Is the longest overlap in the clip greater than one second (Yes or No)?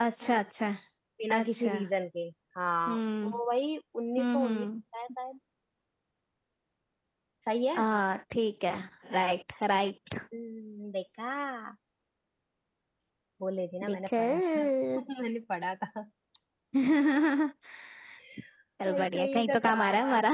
Yes